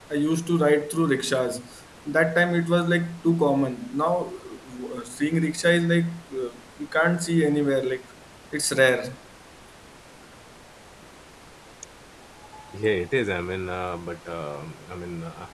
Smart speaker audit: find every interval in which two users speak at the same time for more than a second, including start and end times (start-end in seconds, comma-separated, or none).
none